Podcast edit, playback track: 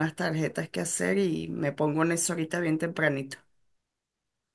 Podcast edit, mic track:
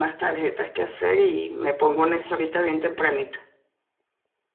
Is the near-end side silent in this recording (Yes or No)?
Yes